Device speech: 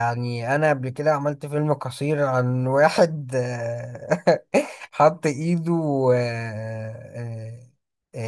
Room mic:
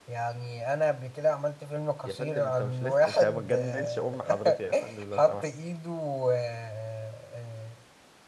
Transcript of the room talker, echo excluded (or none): يا فندم انت مش لسه انت ما تجننش أم حضرتي يا فندم لو سمحت